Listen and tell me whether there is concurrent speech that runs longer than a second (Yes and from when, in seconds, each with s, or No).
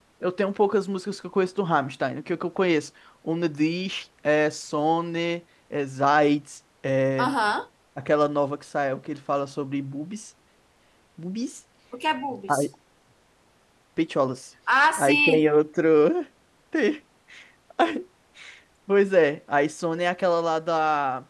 No